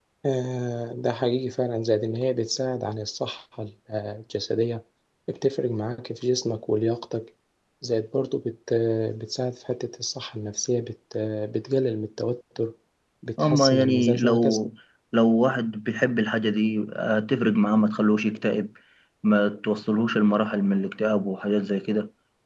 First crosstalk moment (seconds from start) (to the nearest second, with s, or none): 13 s